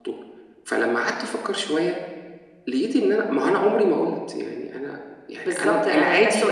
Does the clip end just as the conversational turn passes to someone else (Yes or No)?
Yes